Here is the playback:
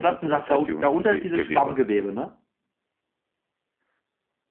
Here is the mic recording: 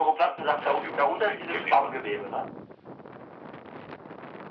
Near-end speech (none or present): none